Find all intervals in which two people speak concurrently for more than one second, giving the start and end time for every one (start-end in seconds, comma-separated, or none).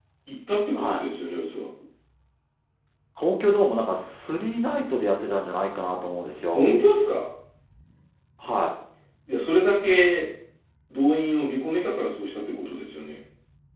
none